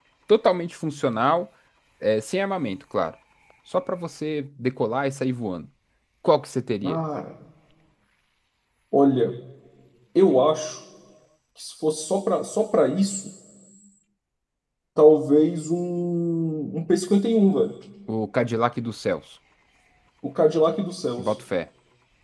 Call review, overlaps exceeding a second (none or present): none